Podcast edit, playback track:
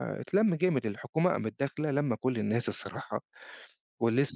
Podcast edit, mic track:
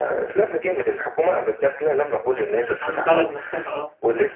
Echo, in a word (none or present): present